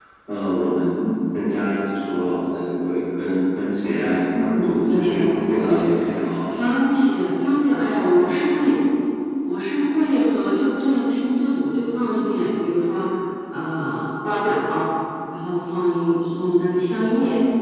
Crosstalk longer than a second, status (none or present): present